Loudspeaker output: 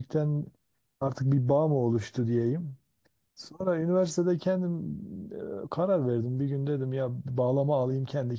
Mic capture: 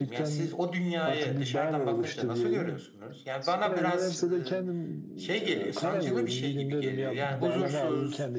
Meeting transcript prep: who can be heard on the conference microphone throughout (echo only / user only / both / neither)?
both